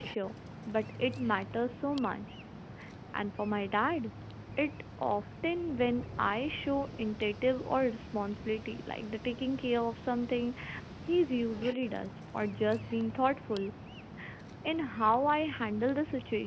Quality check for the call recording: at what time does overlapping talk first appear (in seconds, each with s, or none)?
none